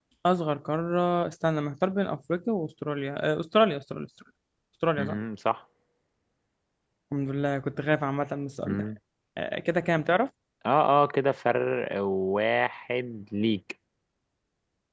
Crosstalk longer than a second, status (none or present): none